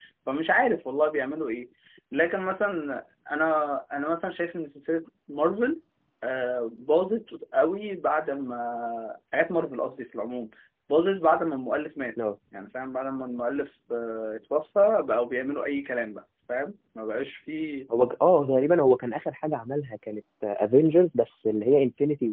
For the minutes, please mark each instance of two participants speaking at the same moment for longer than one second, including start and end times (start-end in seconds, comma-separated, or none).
none